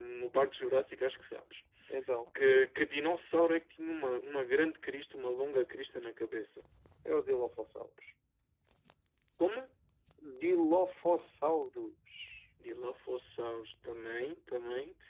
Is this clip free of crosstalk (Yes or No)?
Yes